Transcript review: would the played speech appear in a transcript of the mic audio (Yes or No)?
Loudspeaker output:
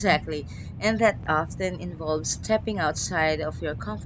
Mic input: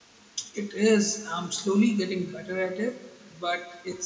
No